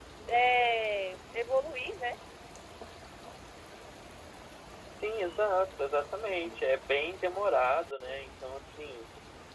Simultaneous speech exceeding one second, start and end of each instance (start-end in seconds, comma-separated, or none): none